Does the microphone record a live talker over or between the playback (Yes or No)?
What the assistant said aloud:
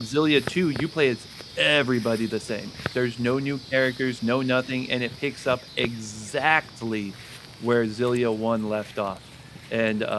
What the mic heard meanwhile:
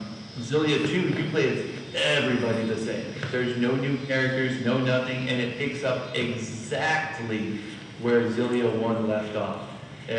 No